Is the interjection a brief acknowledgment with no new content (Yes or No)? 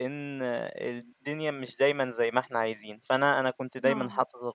Yes